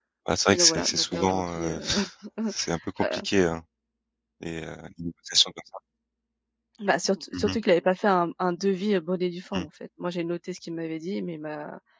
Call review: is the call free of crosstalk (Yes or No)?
No